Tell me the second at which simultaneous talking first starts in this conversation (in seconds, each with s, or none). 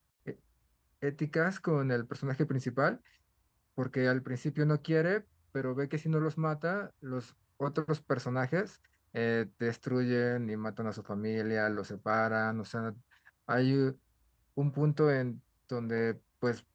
none